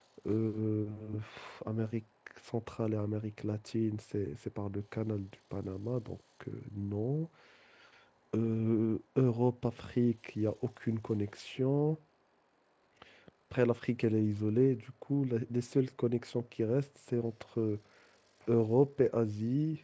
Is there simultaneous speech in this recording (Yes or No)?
No